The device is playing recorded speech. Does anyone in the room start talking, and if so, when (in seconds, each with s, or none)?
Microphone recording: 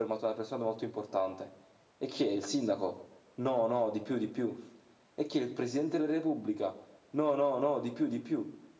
none